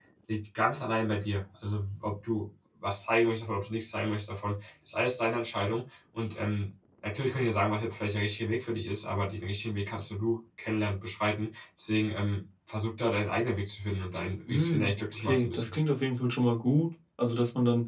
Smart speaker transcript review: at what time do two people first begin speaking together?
14.5 s

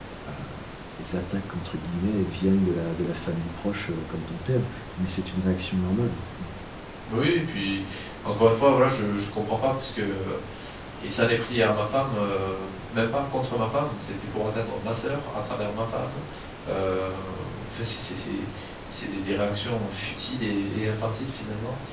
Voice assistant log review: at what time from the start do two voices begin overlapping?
none

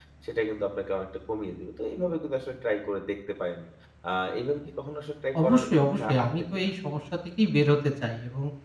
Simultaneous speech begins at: 5.3 s

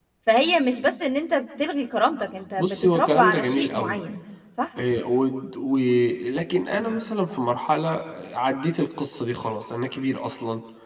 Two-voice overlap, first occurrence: 2.6 s

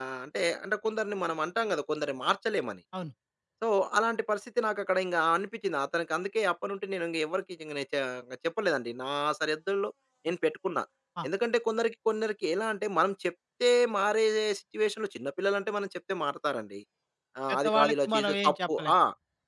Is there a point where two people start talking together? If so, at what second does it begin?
17.5 s

